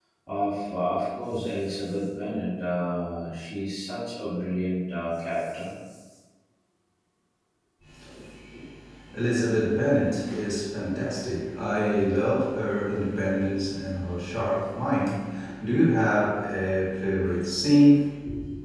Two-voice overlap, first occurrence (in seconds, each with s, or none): none